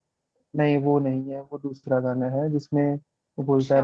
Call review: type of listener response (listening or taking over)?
listening